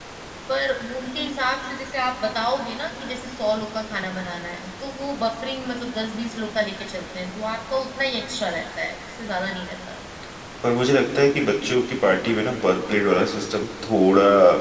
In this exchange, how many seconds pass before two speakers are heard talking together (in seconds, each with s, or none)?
none